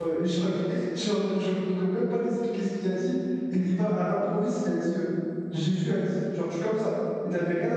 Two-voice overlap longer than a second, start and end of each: none

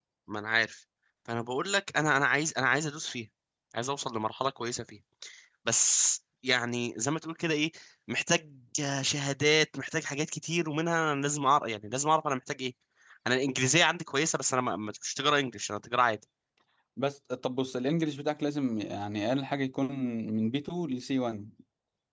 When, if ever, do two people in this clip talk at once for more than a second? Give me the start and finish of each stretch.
none

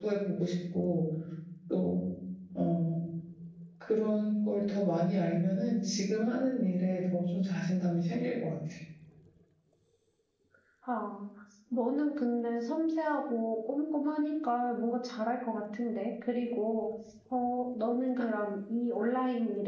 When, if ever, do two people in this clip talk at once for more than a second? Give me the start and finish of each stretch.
none

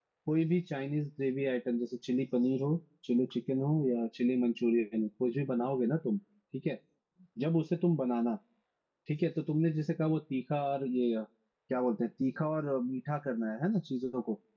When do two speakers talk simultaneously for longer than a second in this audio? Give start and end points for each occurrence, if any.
none

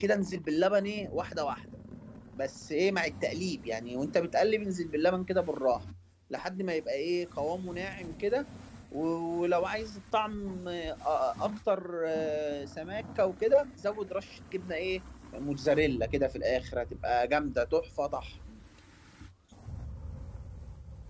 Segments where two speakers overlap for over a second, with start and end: none

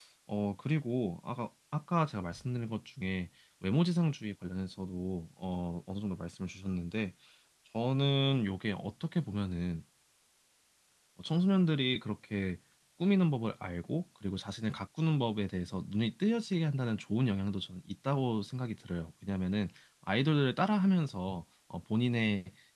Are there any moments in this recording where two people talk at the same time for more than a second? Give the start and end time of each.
none

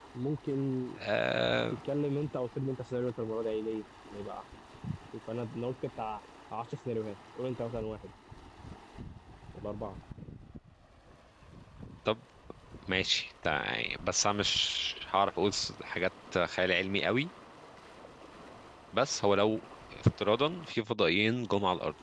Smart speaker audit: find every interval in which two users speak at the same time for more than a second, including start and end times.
none

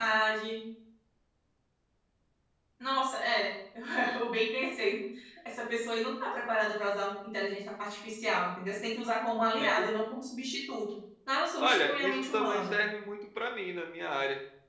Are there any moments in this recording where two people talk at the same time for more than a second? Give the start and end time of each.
11.6-12.8

